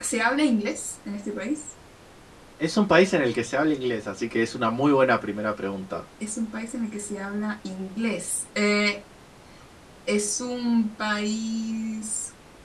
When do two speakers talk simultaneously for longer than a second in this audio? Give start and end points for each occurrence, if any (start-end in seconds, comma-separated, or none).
none